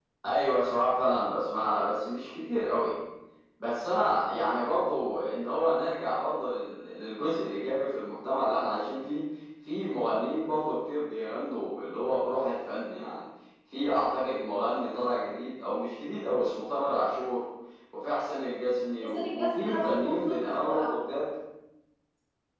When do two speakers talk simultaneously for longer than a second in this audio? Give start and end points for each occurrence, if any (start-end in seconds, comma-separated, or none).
19.0-21.0